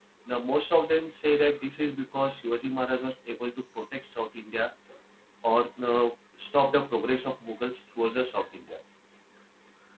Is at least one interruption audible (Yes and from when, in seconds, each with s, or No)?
No